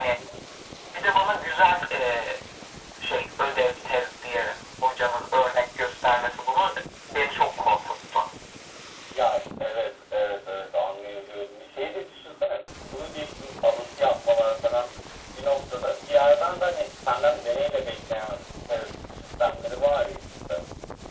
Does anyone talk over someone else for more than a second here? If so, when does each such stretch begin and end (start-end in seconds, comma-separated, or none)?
none